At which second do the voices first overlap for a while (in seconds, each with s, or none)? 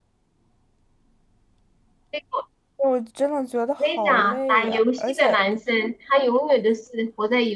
3.8 s